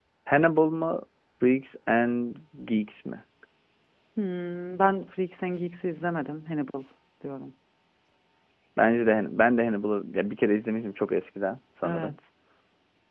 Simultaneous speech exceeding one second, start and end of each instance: none

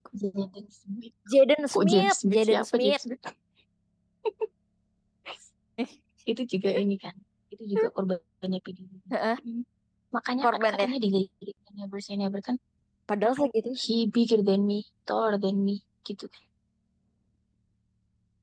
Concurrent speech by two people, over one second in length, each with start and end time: 1.7-2.9

